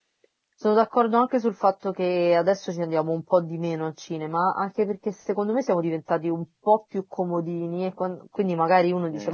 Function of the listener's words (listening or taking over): listening